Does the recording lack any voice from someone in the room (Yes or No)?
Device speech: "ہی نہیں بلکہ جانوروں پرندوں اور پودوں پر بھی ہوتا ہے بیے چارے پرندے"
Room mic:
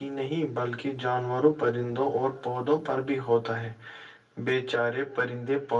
Yes